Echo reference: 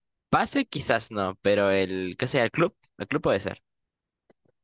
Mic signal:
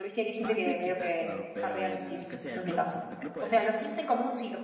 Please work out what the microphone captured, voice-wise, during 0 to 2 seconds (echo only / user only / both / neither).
both